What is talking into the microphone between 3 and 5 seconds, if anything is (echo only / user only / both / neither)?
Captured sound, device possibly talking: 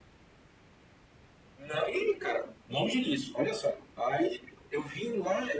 echo only